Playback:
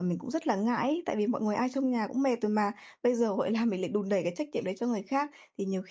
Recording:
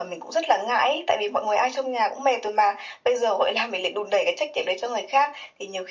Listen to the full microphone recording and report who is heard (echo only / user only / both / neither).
echo only